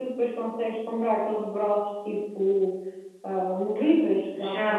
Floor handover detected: Yes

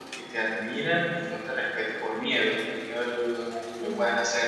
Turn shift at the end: No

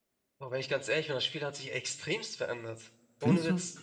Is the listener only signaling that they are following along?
No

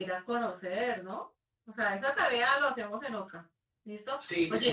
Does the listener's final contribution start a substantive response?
No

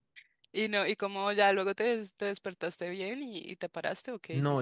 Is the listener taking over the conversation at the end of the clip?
Yes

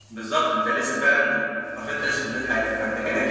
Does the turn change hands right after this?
No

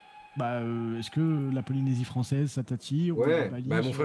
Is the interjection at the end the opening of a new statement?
Yes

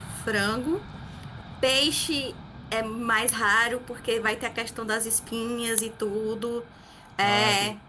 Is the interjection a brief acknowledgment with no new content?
Yes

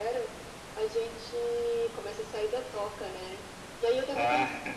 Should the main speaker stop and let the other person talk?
No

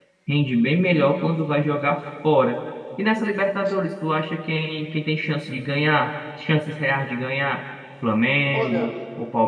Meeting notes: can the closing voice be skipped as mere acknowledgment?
Yes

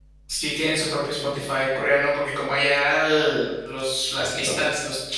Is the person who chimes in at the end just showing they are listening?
Yes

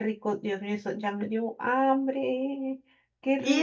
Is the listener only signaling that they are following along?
No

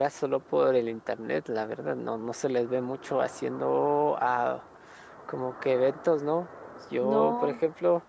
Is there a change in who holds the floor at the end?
No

